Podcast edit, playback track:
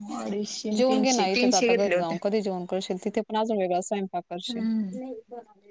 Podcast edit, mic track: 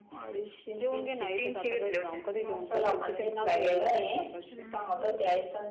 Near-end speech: present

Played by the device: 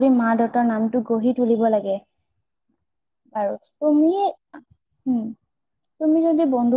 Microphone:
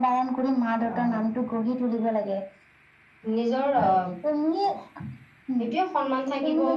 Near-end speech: present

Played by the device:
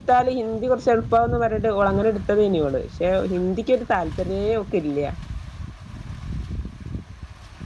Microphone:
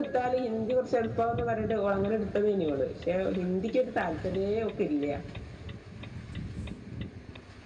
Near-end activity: none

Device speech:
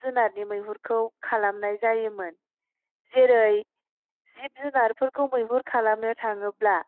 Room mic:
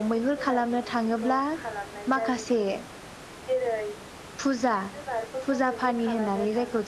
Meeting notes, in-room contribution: present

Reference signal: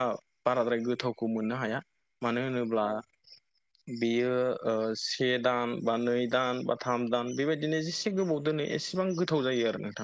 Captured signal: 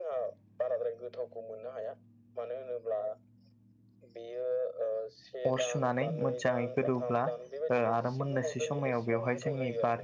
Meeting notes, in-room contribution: present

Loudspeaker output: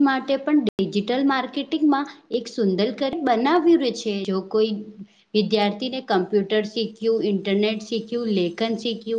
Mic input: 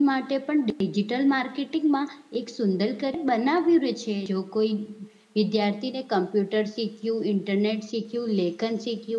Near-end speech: none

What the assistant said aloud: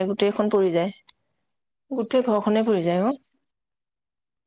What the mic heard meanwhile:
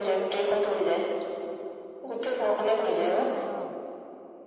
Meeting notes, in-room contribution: present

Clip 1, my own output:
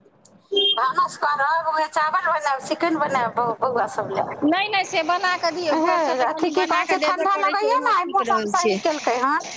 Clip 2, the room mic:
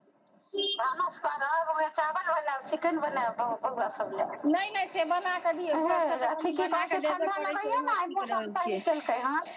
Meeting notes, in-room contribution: none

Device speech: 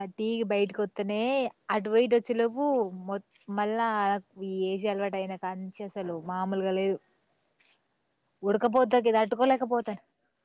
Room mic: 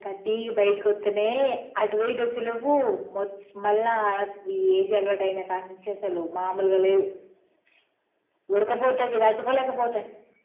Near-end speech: none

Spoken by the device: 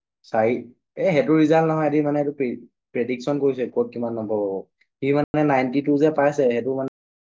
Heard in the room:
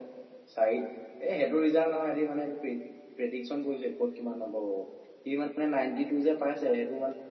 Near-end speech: none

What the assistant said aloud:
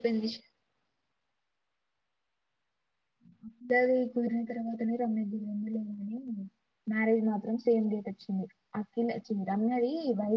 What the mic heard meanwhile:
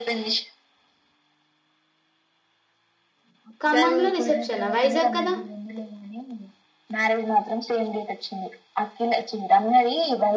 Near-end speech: present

